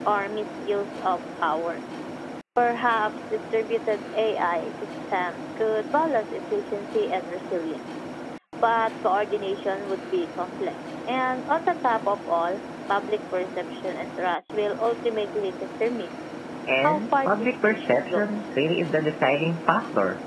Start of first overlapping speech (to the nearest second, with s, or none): 17 s